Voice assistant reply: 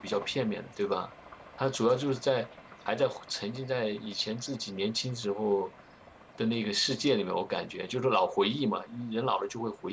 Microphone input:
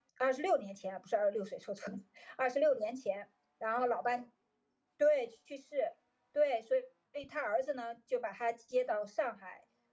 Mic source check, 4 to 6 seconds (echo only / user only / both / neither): user only